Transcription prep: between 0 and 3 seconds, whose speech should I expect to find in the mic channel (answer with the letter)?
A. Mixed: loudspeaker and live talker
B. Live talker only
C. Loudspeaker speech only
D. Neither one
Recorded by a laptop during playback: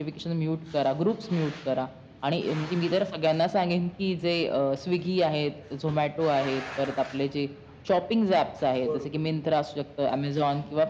C